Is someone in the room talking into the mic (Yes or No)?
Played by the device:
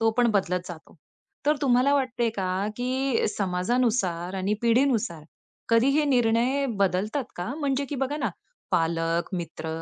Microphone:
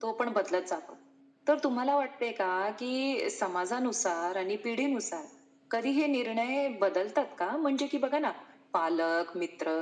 No